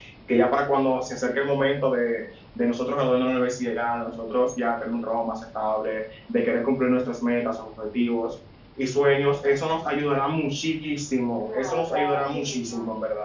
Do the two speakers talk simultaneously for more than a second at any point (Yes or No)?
Yes